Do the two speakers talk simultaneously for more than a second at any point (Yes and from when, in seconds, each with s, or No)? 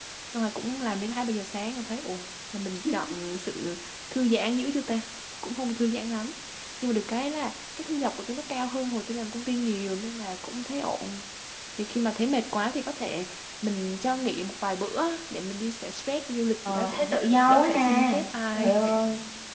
Yes, from 16.7 s